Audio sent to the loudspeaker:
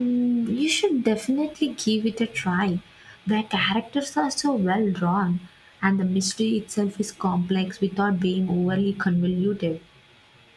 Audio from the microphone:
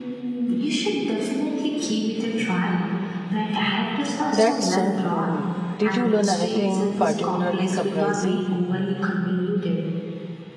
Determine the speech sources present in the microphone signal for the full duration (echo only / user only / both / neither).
both